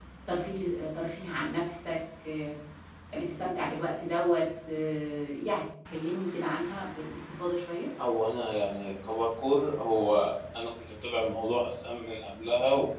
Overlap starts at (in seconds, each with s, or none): none